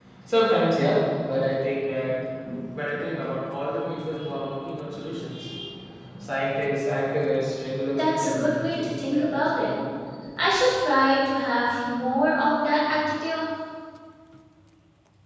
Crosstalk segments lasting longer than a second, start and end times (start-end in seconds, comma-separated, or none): 7.9-9.7